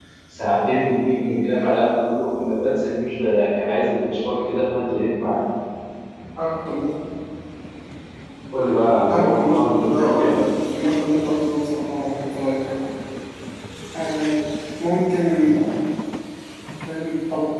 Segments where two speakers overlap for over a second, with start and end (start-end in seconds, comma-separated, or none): 9.1-10.4